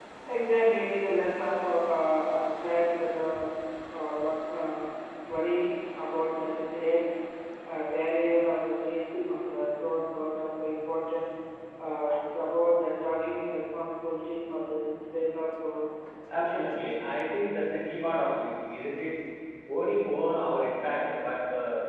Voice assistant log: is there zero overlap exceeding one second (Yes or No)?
Yes